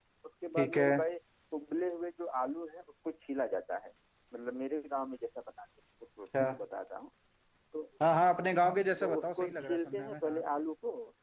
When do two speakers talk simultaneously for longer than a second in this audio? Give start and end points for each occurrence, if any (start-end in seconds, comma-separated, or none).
9.0-10.4